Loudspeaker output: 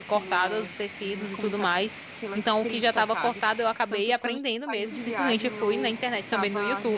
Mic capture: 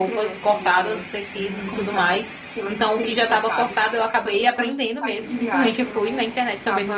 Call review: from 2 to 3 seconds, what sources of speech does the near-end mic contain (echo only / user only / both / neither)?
echo only